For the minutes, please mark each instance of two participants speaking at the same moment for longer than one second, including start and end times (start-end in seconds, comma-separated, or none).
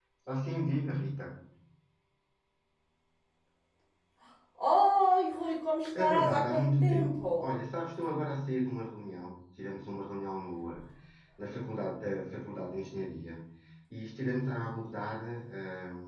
6.0-7.5